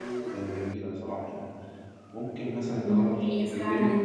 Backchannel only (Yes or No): No